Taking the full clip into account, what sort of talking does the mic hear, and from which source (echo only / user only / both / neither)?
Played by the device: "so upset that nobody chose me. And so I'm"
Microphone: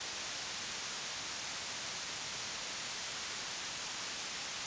neither